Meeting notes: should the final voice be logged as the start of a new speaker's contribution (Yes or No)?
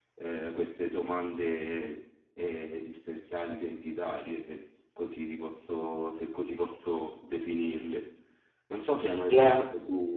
No